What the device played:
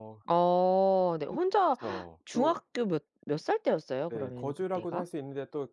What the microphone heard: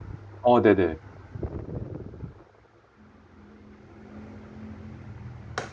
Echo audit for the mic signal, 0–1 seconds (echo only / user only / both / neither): user only